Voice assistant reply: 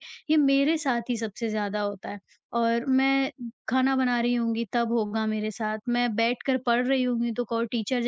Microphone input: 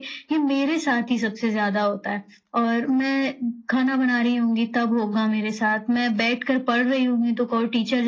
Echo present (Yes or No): Yes